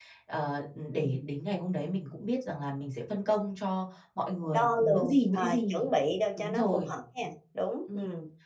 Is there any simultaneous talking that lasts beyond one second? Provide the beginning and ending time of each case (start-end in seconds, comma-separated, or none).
4.4-5.9